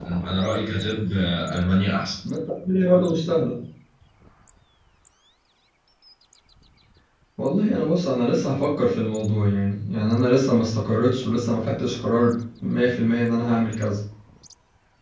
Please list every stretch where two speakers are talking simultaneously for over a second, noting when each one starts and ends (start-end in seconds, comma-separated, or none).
none